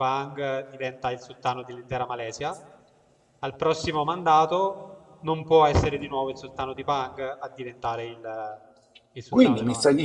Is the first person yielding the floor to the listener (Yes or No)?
Yes